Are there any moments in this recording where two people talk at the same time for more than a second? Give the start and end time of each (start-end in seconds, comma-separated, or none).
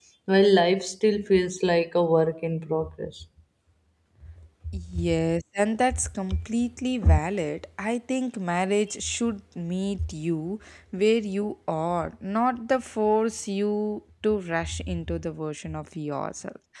none